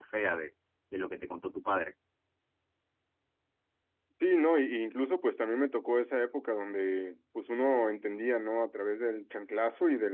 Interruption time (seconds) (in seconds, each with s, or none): none